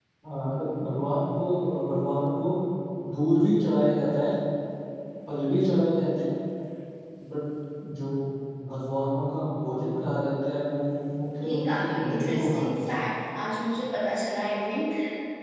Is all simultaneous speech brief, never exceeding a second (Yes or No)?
No